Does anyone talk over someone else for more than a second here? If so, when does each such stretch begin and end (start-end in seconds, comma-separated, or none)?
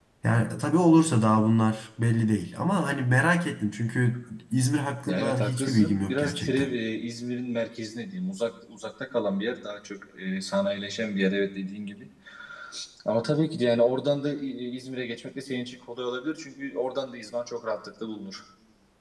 5.1-6.7